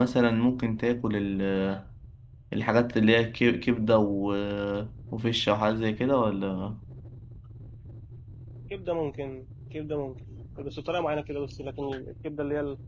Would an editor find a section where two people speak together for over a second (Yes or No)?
No